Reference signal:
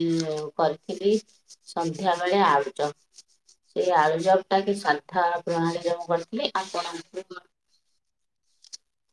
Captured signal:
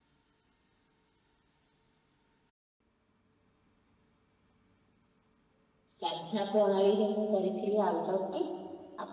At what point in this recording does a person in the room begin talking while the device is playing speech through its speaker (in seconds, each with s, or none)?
5.9 s